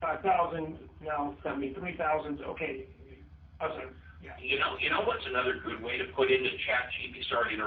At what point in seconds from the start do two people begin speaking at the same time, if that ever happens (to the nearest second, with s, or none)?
none